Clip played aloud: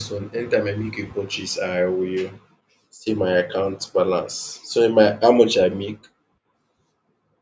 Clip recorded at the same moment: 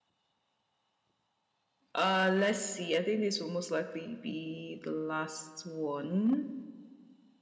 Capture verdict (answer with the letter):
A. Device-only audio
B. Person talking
B